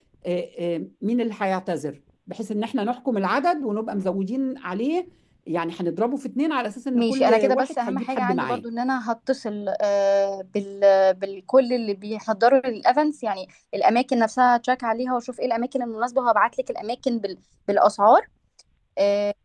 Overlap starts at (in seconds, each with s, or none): 7.0 s